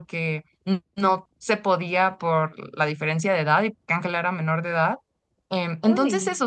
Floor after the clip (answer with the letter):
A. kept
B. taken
A